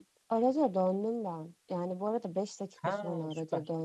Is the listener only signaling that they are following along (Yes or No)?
Yes